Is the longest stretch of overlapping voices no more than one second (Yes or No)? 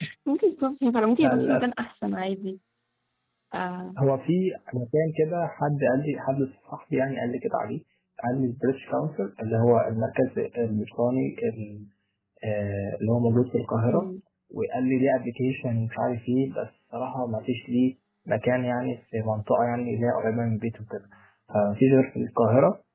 Yes